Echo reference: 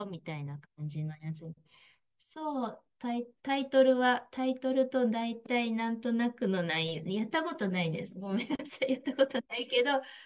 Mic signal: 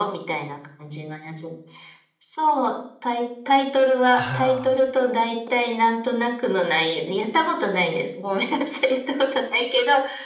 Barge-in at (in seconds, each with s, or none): 4.2 s